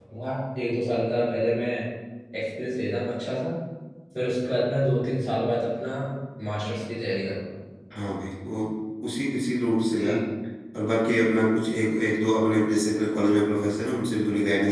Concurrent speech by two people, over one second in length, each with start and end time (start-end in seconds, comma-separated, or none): none